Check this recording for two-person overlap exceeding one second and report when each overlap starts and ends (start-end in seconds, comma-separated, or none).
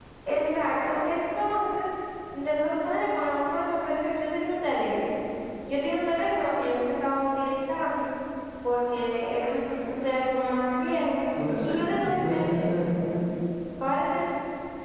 11.6-13.1